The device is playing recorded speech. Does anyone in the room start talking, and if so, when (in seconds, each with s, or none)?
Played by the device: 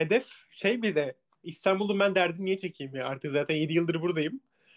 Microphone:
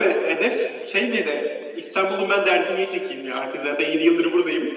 none